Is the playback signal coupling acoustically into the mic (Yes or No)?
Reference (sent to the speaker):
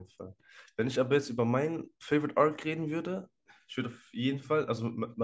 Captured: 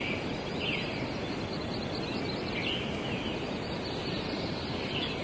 No